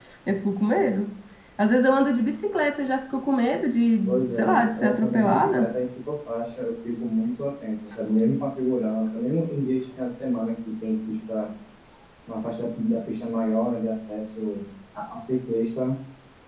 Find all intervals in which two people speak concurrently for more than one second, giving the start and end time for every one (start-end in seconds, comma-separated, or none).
4.1-5.7